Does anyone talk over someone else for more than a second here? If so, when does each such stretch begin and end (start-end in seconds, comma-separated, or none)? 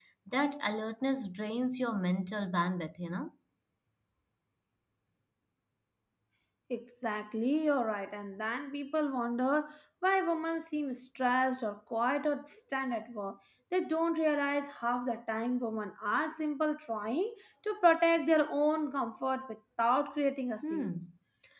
none